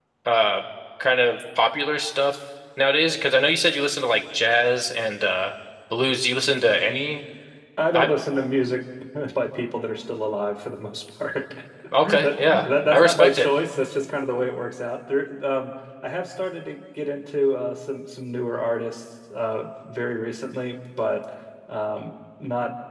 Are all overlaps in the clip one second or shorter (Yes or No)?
No